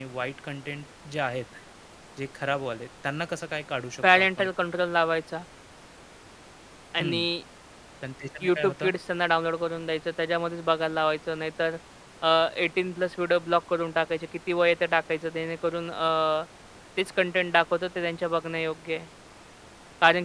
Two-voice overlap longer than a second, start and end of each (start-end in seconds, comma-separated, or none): none